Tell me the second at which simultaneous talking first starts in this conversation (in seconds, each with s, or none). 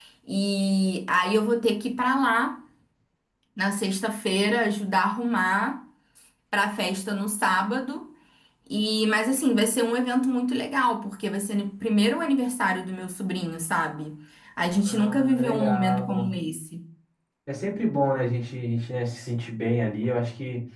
14.8 s